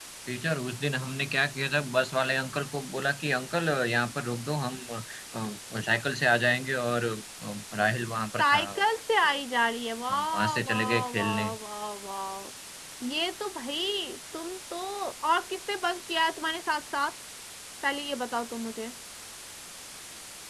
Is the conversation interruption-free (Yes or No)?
No